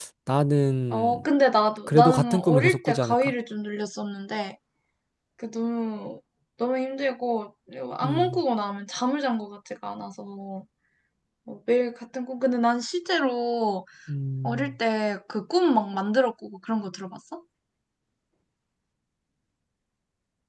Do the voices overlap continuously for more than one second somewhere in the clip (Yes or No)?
Yes